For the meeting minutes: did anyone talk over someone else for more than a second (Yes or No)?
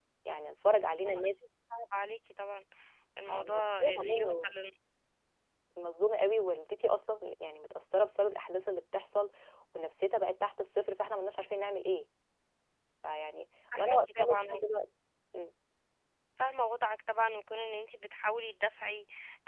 Yes